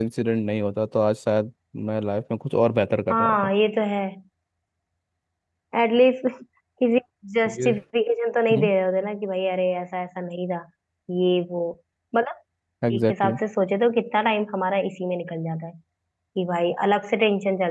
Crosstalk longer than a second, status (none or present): none